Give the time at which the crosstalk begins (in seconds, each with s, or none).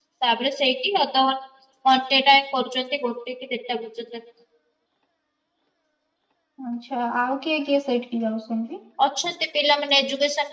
none